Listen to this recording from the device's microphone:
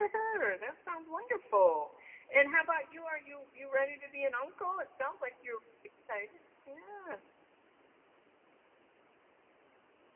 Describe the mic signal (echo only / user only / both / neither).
user only